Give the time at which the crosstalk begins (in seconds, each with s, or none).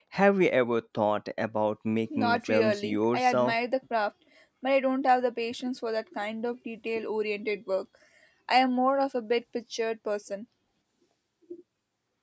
2.1 s